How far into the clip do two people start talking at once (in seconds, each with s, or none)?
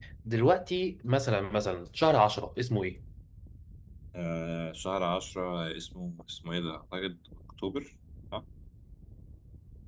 none